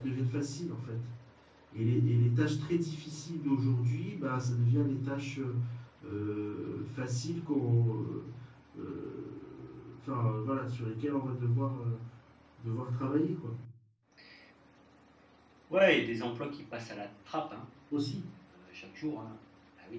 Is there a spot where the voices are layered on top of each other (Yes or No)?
No